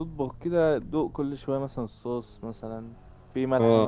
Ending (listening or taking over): taking over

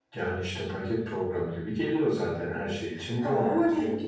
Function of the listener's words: taking over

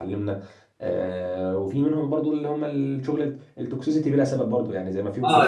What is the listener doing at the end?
taking over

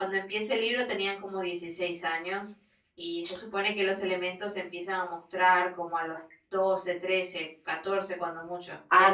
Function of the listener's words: taking over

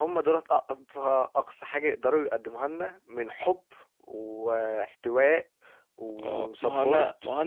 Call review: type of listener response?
taking over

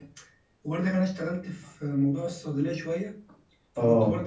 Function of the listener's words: listening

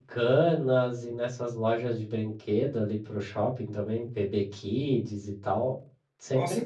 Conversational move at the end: taking over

